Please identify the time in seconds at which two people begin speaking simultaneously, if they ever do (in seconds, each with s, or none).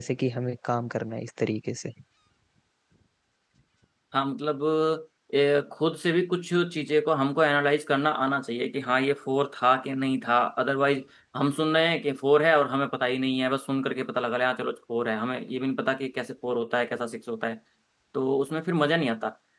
none